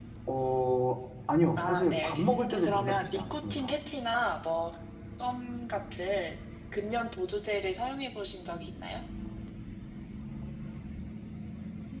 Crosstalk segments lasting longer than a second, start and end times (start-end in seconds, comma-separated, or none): 1.6-3.7